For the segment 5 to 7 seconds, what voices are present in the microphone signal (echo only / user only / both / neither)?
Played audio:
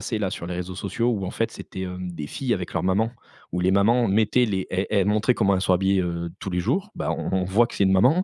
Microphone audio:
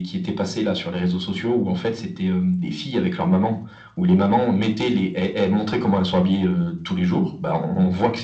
echo only